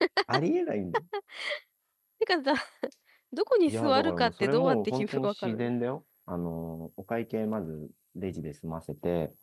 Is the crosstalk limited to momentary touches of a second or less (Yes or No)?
No